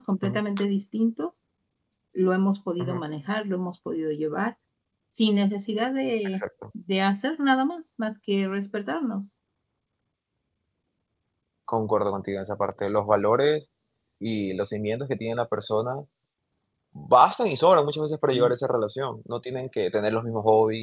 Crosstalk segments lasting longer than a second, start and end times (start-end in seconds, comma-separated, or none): none